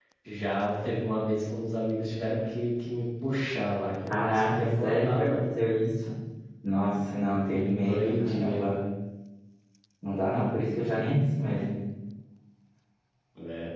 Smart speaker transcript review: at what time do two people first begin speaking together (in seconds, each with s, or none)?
4.1 s